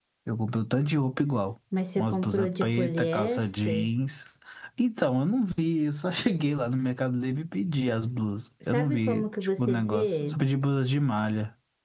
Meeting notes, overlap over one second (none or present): present